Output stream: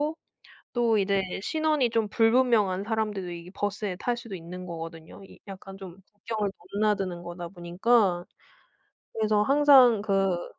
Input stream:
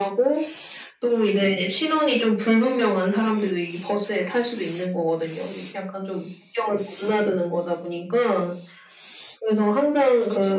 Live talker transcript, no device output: none

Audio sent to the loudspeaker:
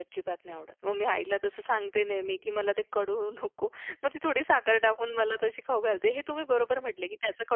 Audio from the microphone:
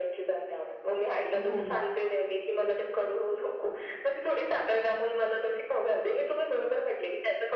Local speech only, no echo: हो.

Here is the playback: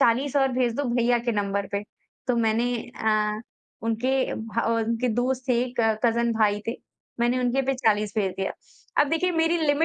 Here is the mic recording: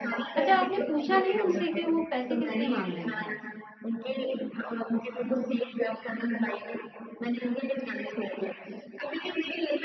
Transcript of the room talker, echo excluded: अच्छा आपने पूछा नहीं उनसे कि वो पैसे किस लिए माँग रहे थे आपसे?

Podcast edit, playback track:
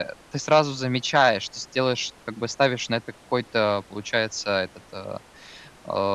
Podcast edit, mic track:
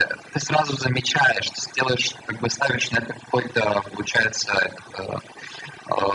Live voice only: none

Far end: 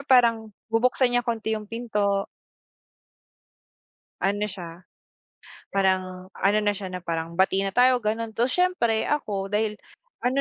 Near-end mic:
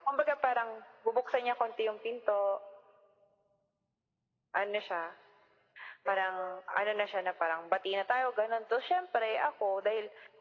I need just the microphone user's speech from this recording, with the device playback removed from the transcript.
none

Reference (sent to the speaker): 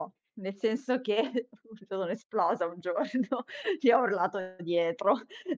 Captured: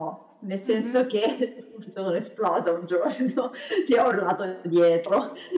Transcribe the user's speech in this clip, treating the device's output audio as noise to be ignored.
Mh-mh.

